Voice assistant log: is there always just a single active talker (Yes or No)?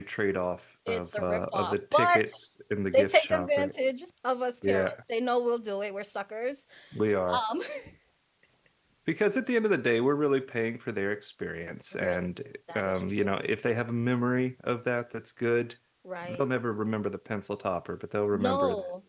No